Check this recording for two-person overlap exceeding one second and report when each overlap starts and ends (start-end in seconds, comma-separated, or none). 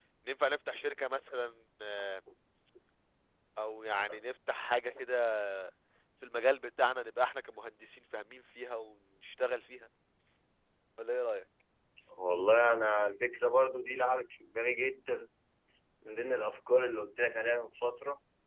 none